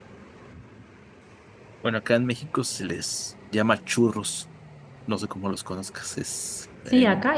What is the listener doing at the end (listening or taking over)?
taking over